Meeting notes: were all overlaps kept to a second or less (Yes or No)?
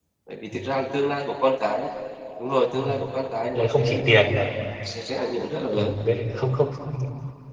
Yes